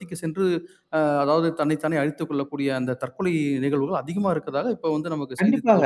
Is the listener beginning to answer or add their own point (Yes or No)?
Yes